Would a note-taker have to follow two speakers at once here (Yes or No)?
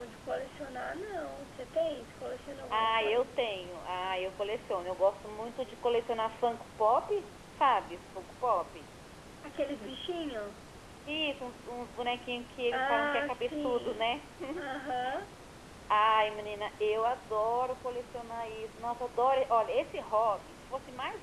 Yes